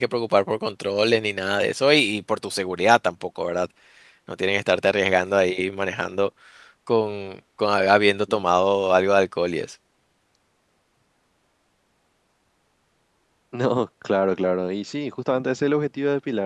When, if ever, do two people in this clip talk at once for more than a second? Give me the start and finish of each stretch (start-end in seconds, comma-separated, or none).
none